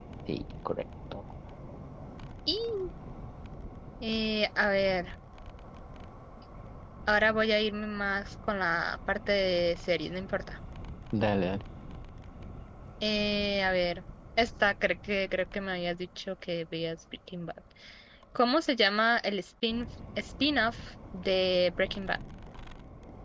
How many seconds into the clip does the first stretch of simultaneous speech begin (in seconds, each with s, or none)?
none